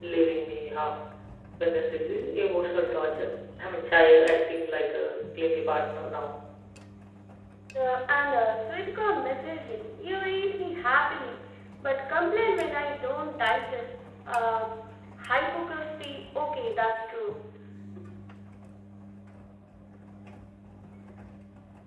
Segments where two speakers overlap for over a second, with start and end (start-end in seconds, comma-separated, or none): none